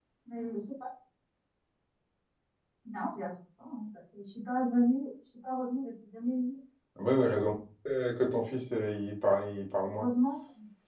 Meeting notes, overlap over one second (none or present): none